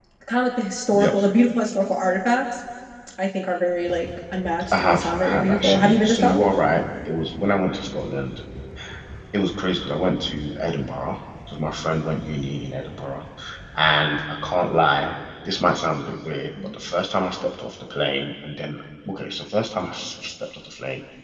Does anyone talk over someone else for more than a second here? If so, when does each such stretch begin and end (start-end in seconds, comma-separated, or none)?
4.7-6.5